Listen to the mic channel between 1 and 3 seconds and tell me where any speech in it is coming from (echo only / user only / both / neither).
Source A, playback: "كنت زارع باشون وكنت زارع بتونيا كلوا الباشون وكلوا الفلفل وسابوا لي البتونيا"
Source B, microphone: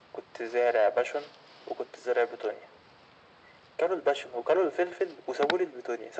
echo only